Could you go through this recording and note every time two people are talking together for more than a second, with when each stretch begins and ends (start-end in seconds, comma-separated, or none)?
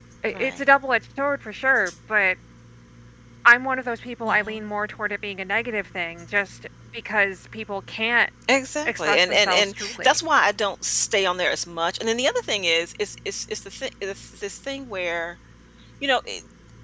8.8-10.2